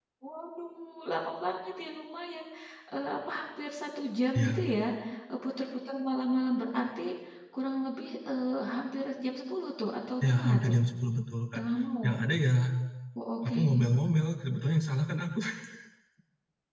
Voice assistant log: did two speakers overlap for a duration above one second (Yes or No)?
No